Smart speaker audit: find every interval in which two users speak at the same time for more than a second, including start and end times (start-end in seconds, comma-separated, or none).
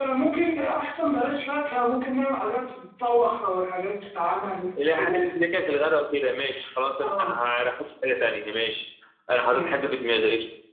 none